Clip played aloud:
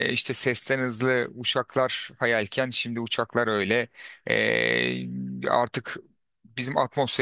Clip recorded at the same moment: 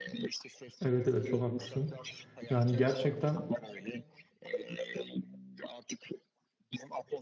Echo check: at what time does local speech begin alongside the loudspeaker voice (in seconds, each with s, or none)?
0.8 s